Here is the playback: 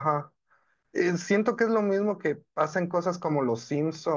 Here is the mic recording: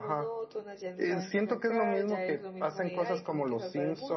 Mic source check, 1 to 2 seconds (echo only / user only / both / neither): both